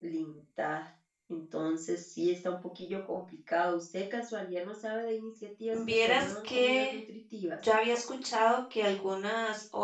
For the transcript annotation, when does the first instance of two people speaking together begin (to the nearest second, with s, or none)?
6 s